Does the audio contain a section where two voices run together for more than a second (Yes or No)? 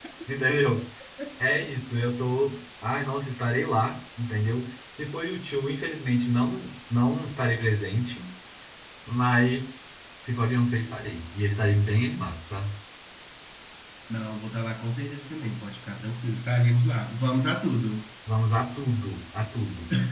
No